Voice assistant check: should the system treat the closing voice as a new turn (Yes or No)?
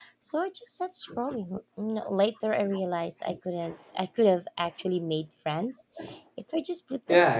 Yes